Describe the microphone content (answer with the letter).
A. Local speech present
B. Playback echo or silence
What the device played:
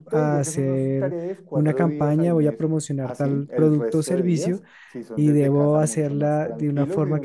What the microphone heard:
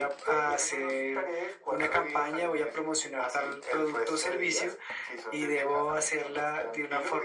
B